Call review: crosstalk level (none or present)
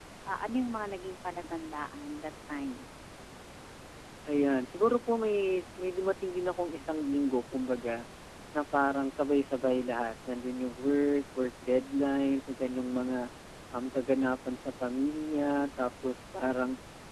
none